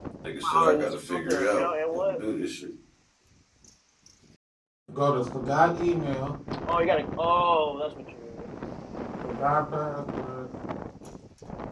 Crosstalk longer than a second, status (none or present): present